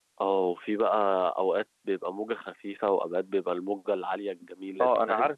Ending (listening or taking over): taking over